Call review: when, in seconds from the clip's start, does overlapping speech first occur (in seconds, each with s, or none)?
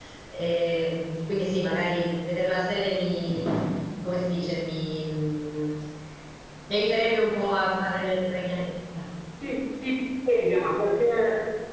none